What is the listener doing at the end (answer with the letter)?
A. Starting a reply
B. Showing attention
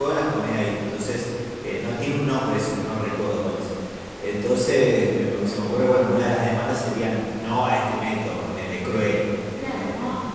A